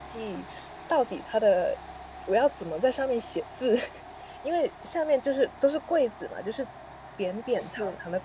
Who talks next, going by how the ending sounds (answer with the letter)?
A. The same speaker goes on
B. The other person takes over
A